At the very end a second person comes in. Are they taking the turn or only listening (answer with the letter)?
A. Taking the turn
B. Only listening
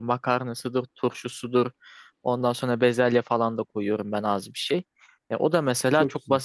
B